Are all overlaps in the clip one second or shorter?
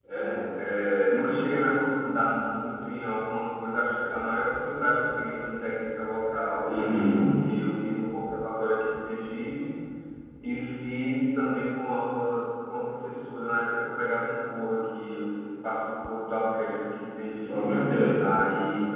Yes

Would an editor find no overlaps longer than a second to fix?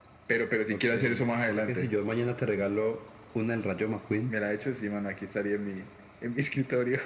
Yes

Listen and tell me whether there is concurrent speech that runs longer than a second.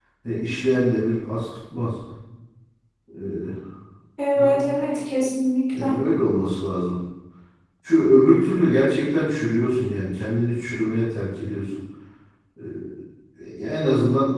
No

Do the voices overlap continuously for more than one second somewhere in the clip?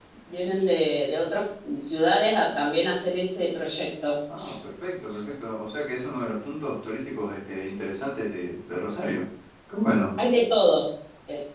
No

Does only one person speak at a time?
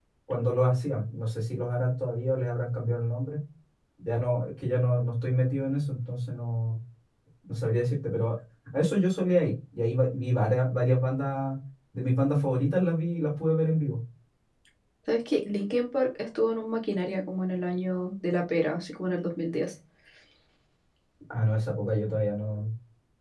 Yes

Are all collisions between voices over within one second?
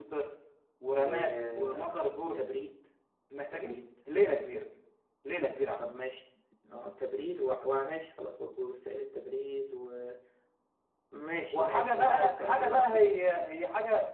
No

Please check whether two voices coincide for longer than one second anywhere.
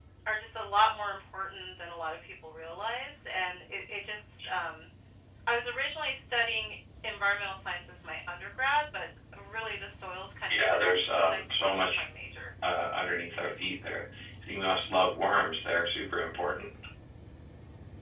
Yes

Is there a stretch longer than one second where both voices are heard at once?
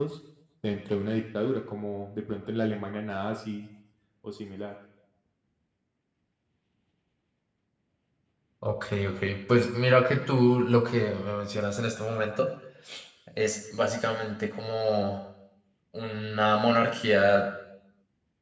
No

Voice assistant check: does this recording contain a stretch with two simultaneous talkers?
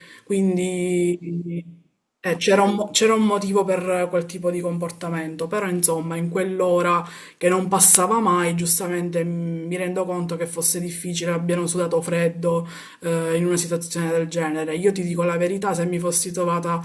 No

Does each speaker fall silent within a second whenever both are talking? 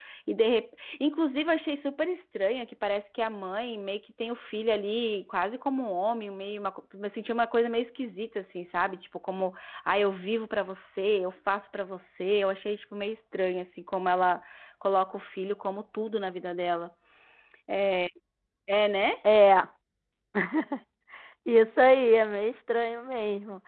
Yes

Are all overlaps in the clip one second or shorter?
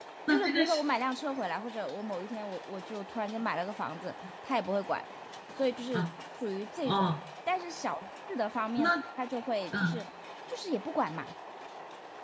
Yes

